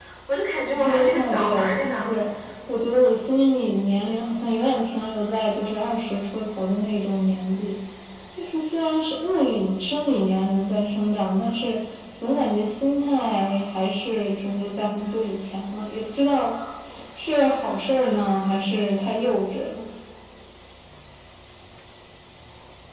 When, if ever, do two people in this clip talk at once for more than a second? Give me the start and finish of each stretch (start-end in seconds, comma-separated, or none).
0.7-2.1